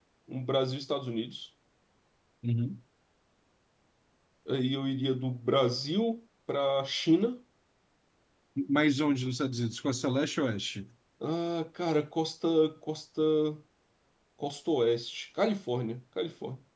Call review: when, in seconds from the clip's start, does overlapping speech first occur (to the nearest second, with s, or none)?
none